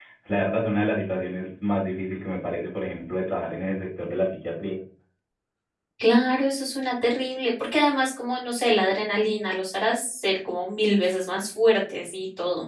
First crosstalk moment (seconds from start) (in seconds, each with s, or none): none